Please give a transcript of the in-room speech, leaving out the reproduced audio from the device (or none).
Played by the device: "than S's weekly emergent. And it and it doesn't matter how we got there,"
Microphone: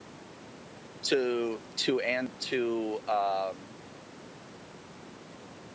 To to and to um